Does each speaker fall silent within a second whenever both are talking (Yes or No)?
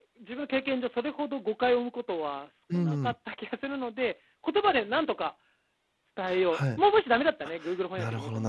Yes